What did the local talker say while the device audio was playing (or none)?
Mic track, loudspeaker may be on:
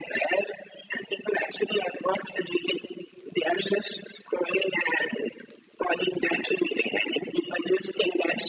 none